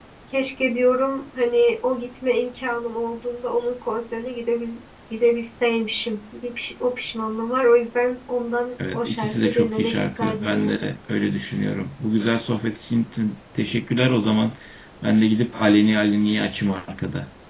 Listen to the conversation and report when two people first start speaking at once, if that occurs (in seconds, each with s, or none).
8.8 s